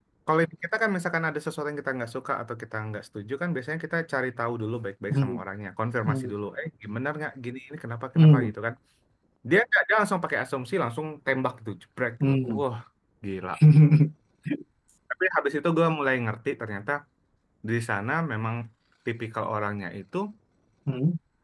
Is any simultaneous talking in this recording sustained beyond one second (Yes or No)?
No